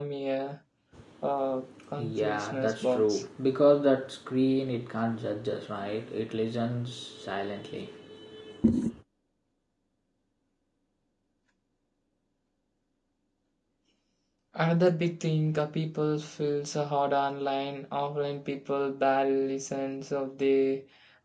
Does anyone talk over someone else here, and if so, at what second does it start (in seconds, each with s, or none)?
2.0 s